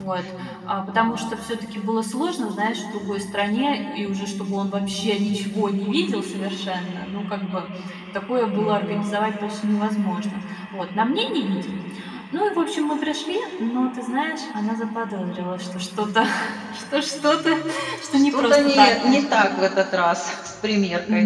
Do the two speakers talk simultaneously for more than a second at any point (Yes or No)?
Yes